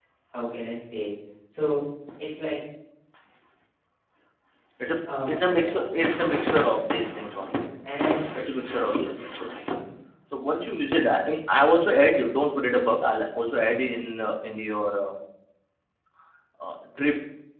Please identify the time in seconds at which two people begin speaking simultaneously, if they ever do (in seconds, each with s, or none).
5.3 s